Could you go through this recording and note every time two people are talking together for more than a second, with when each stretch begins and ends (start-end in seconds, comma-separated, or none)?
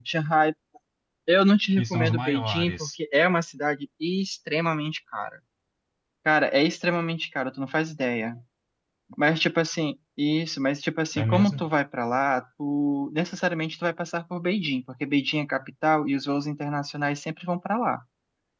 1.8-3.0